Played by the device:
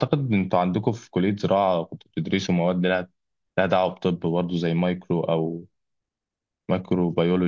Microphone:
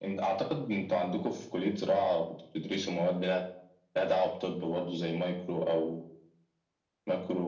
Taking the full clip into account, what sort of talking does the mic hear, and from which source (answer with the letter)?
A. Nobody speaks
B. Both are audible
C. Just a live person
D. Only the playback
D